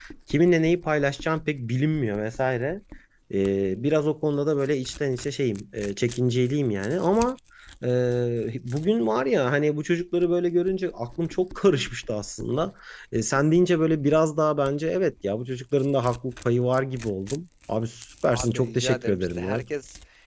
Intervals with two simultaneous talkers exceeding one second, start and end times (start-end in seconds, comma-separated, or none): 18.2-19.6